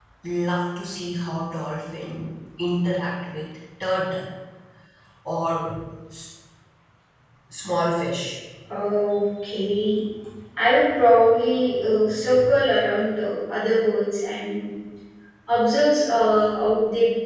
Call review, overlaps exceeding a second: none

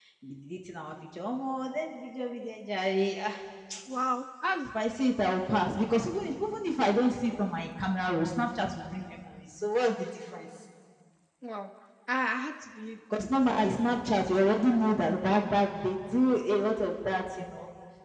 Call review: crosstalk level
none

